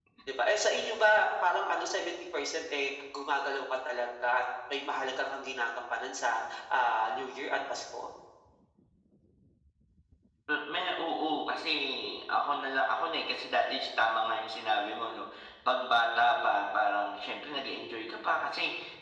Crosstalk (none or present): none